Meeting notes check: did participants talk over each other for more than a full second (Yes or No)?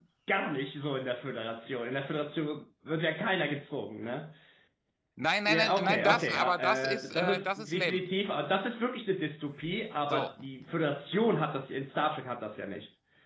Yes